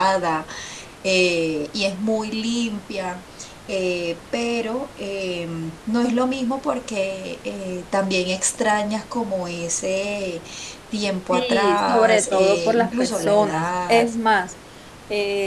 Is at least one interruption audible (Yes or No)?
Yes